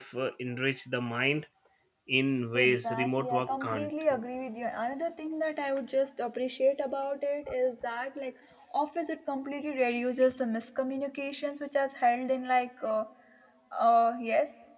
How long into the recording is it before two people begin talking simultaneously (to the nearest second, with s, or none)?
3 s